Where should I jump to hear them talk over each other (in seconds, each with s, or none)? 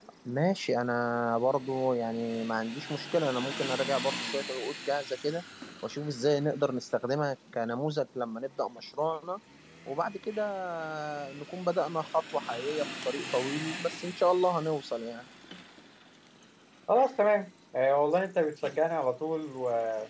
none